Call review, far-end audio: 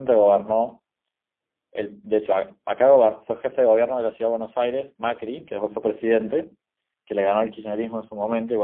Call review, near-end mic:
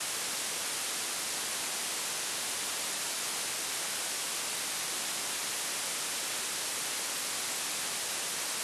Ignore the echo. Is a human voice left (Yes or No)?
No